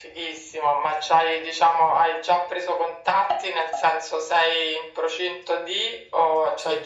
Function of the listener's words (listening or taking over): listening